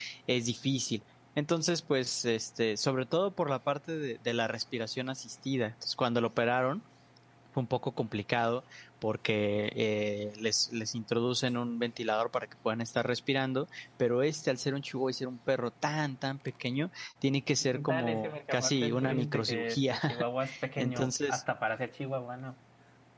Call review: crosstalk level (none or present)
present